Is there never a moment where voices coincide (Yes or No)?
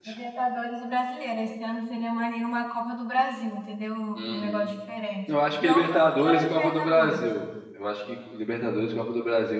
No